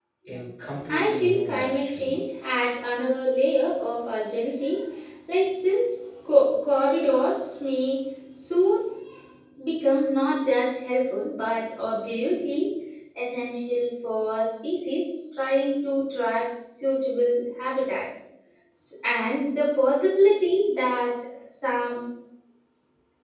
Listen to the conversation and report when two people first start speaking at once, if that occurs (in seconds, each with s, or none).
0.9 s